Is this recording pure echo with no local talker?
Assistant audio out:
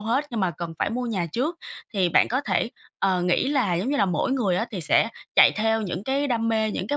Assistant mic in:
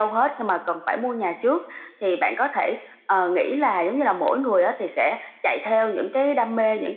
Yes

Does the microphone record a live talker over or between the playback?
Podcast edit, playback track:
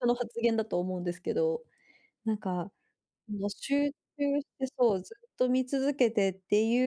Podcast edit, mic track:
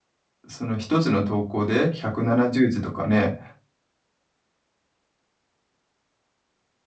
Yes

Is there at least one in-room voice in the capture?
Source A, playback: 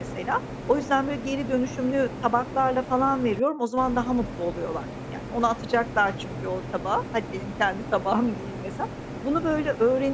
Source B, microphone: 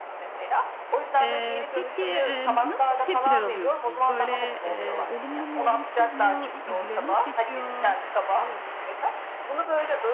Yes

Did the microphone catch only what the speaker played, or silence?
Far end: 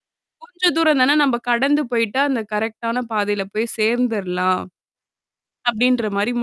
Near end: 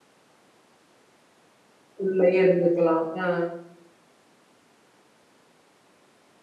No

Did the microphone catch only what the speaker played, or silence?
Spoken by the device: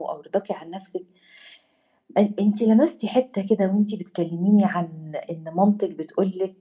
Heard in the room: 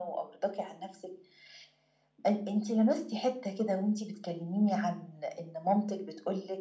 Yes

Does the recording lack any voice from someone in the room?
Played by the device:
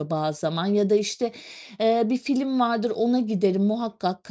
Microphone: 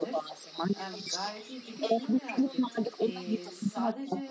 No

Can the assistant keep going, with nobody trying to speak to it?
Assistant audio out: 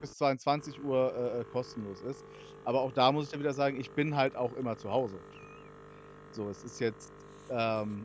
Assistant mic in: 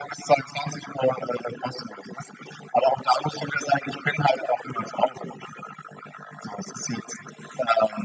Yes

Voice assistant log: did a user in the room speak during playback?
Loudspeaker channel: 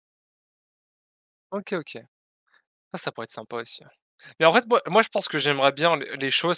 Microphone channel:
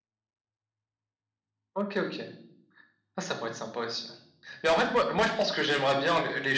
No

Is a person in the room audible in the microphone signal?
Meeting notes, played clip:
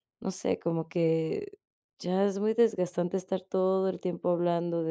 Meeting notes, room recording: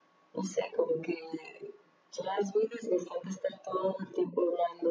No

